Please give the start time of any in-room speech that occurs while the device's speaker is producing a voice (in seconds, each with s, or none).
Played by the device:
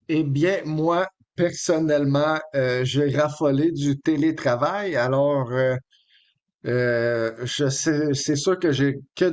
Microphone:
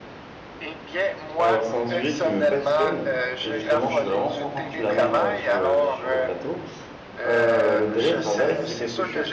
1.4 s